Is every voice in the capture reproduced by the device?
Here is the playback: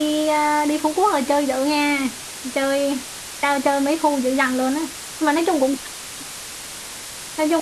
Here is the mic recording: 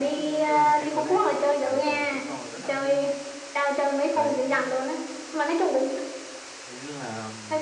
No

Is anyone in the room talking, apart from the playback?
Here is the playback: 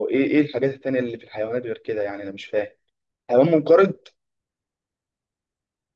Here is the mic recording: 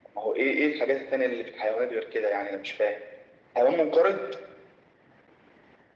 No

